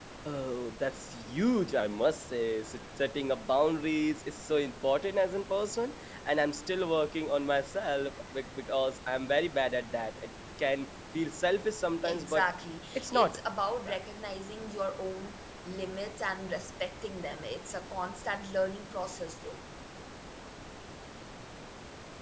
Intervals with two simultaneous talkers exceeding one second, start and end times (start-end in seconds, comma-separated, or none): none